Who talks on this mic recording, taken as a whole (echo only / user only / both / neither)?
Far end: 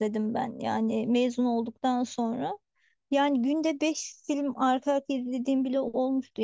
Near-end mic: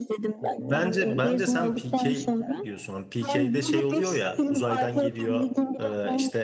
both